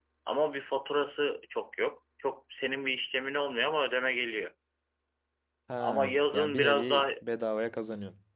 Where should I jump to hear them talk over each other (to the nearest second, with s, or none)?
6 s